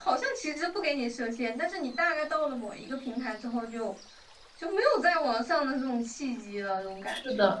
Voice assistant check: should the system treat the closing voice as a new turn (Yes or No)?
Yes